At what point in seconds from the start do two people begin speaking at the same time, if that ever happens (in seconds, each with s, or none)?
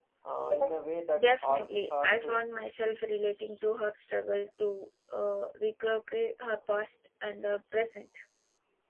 1.2 s